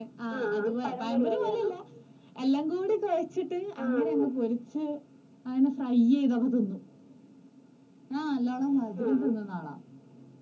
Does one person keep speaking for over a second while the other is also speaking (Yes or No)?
Yes